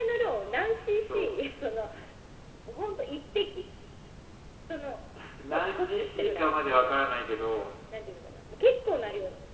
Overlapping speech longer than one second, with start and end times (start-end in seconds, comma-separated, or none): 5.5-7.0